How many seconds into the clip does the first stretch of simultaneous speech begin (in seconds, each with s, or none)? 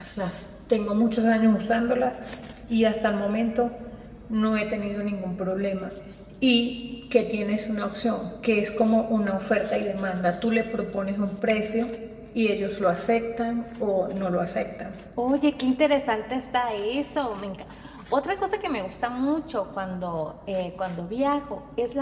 none